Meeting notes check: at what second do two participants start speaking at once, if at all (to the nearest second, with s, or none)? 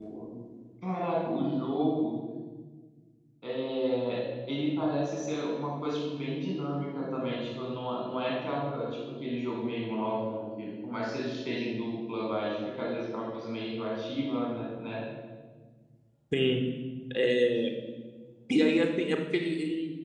none